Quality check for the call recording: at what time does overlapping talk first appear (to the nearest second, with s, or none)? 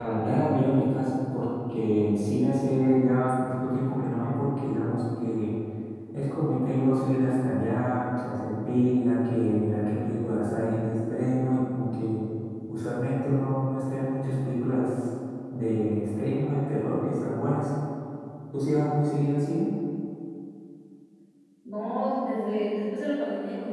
none